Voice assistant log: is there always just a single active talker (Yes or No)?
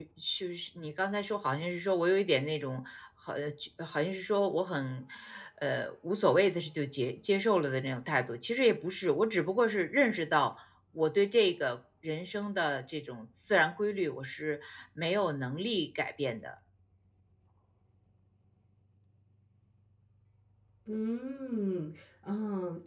Yes